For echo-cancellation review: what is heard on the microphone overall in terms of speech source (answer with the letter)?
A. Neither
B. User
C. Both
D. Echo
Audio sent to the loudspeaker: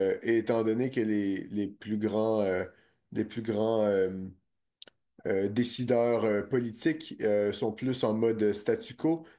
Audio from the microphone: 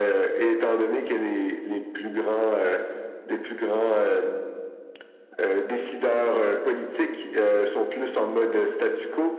D